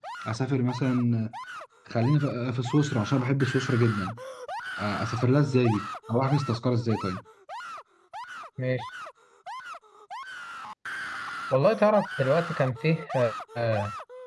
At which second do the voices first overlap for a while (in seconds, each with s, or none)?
none